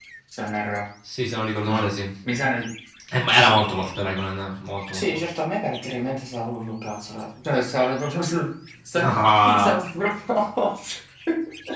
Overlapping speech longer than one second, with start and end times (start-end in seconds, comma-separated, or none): none